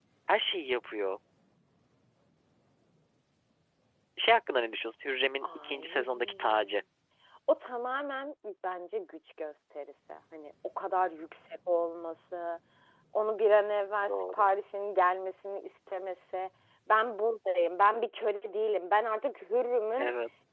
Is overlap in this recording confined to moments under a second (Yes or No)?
No